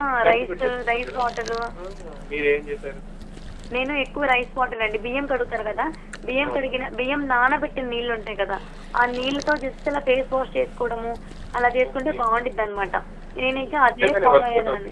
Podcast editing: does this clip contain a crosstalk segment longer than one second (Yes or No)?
Yes